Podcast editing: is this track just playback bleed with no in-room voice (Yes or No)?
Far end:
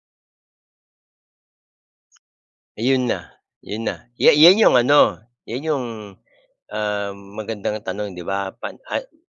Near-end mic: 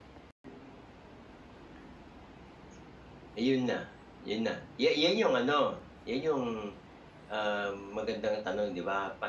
Yes